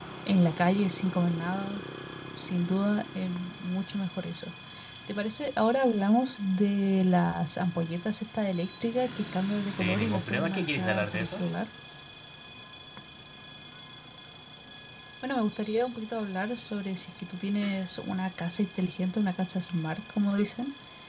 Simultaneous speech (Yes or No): Yes